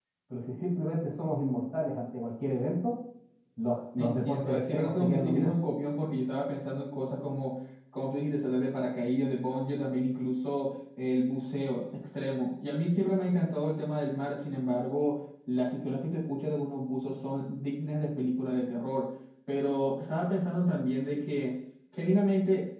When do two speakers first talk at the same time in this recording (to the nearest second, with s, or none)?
4 s